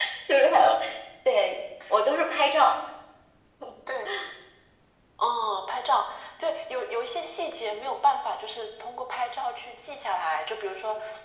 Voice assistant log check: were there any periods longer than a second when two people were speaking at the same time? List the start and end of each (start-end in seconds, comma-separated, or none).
none